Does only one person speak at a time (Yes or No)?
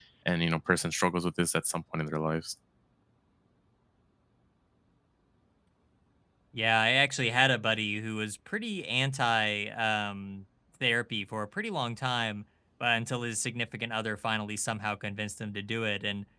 Yes